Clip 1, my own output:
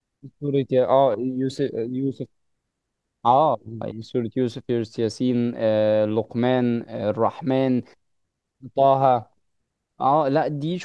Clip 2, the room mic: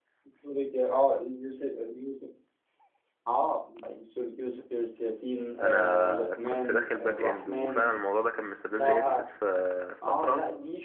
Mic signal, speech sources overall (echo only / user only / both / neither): both